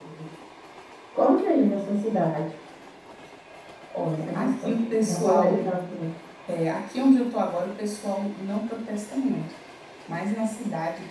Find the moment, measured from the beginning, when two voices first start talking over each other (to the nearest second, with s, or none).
4 s